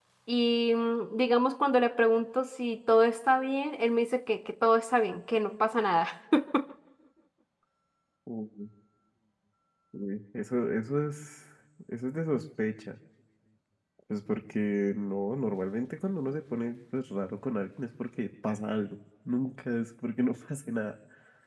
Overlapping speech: No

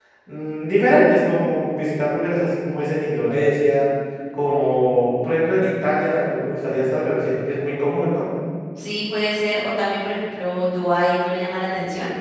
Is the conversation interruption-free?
Yes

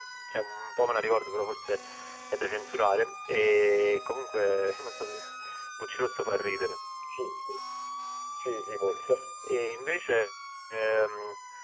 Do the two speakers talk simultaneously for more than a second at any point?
No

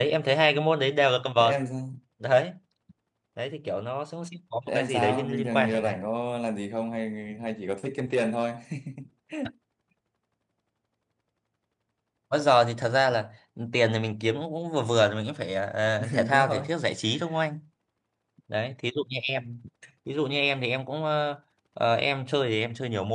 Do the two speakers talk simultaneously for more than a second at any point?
Yes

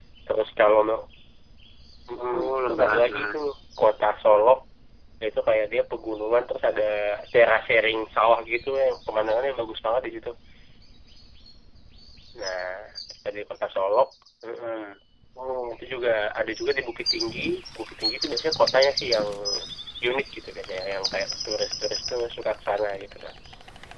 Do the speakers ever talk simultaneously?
Yes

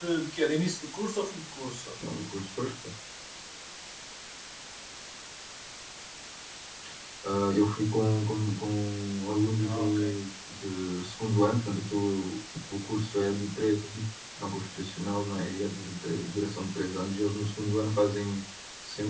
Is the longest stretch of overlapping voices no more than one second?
Yes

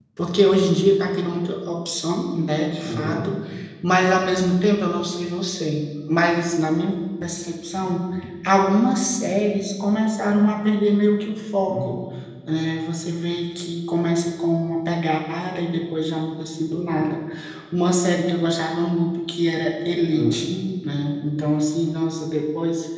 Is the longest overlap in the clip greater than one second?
No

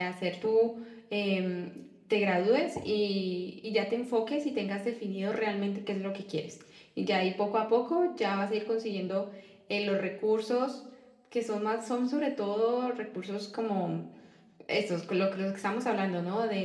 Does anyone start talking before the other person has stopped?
No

